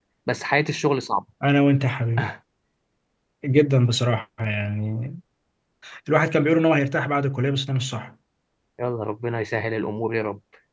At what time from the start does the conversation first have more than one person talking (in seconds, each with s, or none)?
none